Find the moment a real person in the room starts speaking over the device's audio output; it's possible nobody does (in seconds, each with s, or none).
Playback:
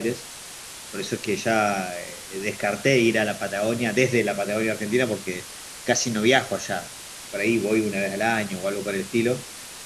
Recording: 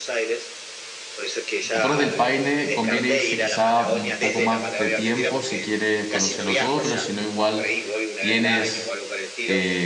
1.7 s